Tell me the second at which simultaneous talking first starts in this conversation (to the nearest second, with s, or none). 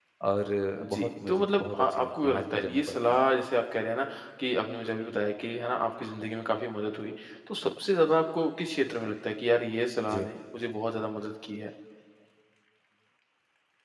1 s